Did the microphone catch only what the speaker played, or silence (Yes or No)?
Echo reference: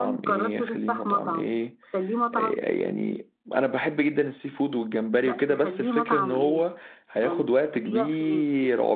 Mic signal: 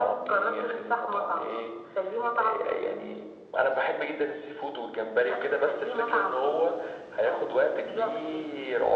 Yes